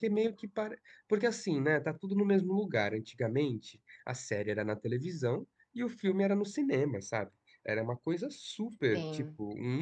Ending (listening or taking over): listening